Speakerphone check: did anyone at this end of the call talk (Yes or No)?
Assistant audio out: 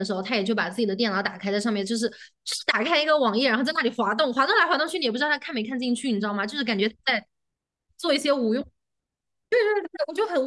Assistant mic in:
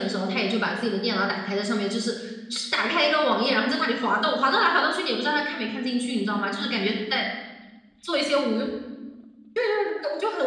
No